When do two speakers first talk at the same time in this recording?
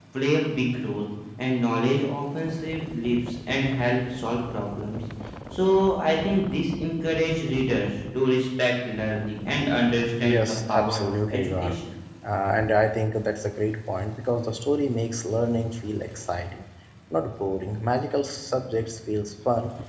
10.2 s

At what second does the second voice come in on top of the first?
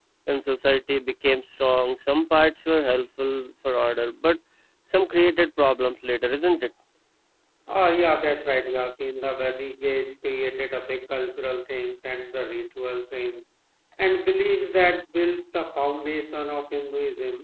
none

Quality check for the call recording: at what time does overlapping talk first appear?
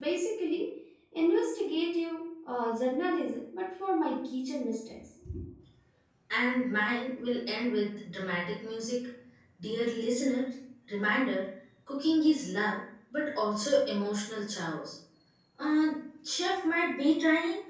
none

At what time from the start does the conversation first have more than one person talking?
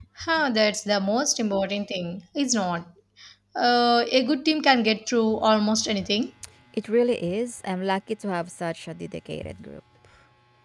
none

